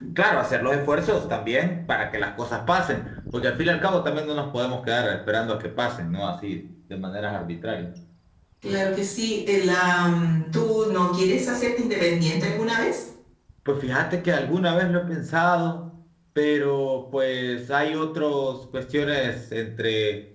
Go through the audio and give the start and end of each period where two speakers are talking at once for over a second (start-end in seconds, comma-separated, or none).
none